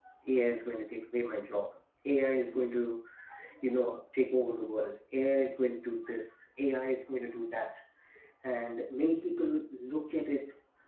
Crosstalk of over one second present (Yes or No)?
No